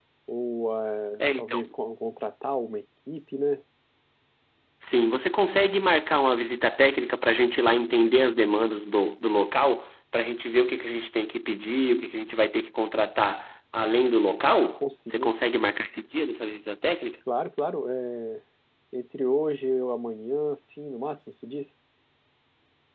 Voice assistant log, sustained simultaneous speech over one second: none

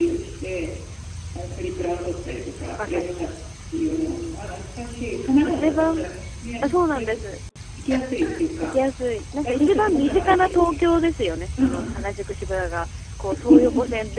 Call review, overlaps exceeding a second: present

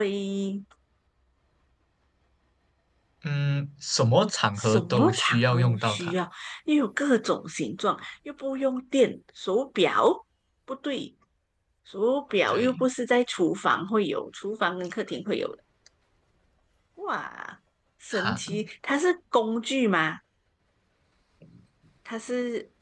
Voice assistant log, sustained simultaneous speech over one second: present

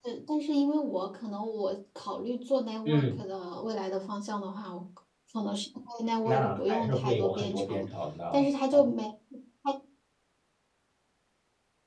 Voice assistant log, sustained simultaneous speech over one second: present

